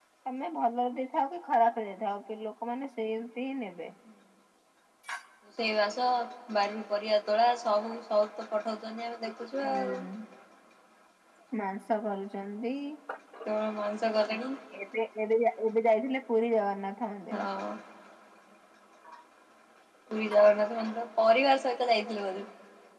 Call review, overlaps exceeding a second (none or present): none